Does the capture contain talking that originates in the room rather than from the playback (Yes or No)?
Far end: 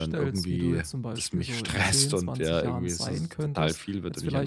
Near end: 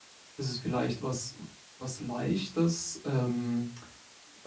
Yes